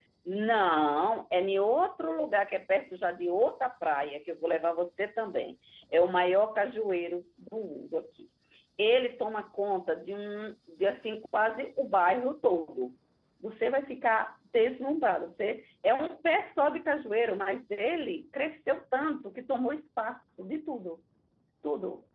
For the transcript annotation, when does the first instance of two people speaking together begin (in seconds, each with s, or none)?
none